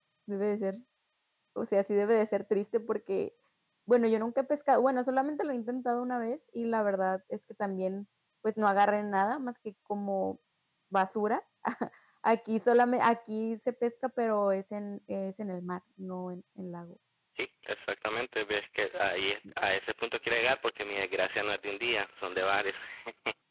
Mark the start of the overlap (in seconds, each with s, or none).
none